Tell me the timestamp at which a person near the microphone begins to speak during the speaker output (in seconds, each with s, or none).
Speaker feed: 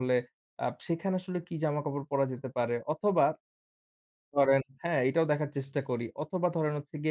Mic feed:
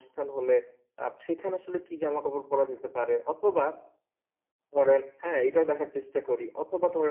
none